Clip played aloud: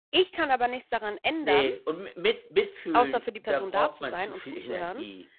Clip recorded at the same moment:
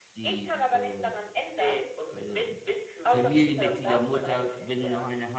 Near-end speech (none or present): present